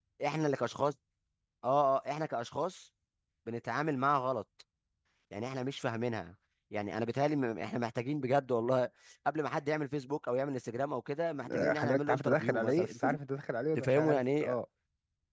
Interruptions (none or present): present